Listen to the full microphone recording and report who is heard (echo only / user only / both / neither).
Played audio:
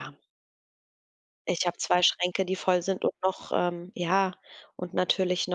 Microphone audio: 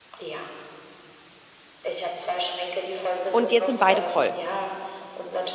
both